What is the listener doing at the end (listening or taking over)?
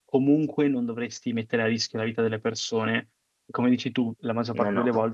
listening